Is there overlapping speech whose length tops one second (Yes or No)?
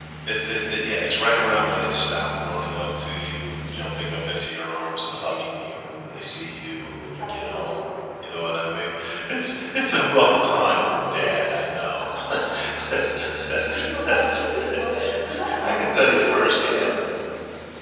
Yes